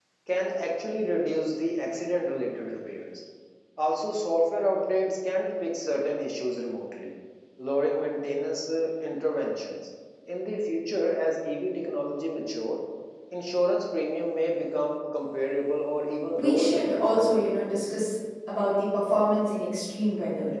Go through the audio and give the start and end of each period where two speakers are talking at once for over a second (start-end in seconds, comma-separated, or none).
16.3-18.0